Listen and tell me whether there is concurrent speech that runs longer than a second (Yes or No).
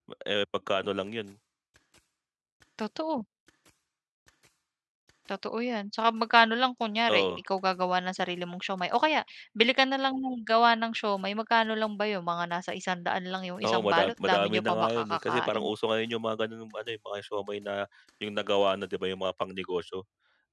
Yes